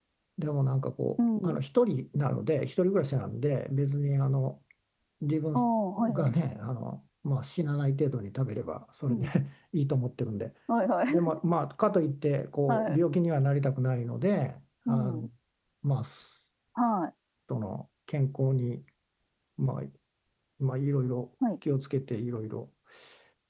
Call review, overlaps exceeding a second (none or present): none